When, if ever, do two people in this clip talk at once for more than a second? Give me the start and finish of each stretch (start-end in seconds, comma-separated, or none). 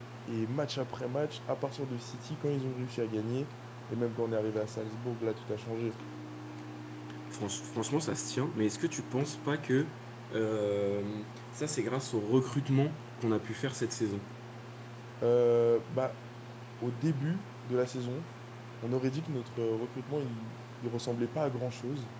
none